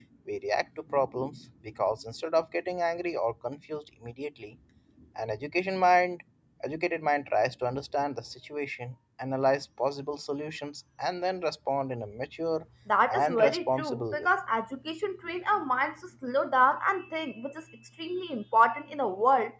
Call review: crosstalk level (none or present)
present